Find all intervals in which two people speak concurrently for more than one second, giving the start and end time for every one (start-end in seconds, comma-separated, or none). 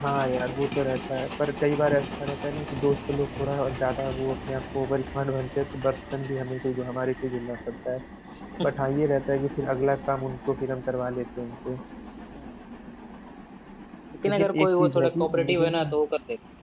14.2-15.9